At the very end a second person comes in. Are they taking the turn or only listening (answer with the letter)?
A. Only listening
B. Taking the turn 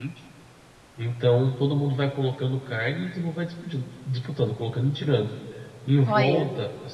A